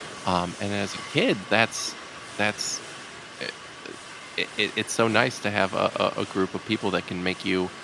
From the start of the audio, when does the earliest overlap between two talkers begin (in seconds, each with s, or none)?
none